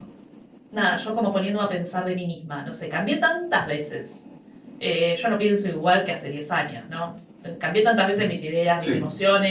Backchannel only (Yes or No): Yes